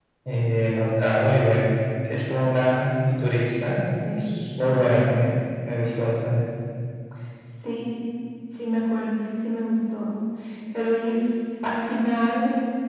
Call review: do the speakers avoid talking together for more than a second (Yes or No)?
Yes